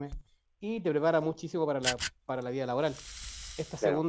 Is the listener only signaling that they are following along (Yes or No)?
Yes